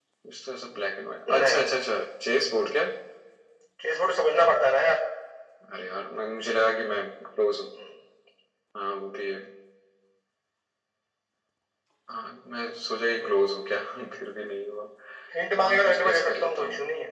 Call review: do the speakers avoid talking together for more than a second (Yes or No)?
No